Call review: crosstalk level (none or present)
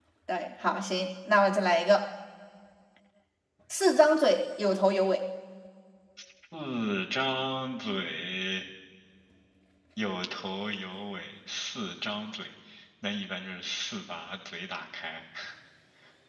none